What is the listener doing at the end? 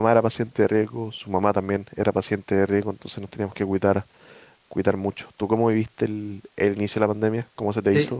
taking over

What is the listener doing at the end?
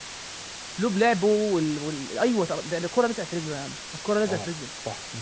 taking over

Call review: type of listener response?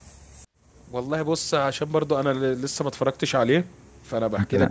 listening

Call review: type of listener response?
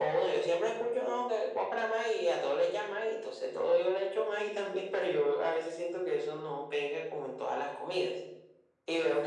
taking over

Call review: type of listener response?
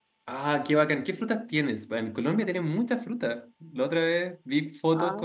listening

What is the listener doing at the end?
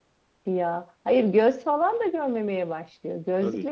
listening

